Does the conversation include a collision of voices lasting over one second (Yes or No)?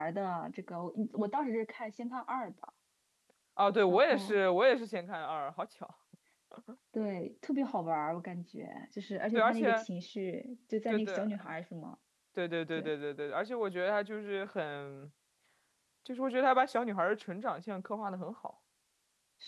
No